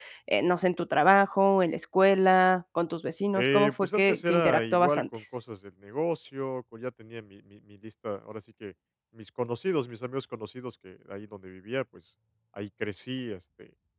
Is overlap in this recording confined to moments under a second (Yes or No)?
No